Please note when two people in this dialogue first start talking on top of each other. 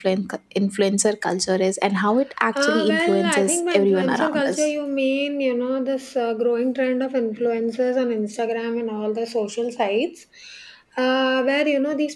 2.5 s

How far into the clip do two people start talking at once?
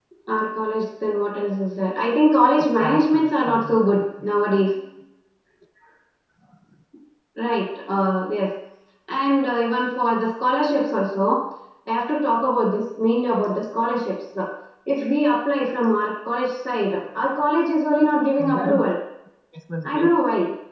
2.6 s

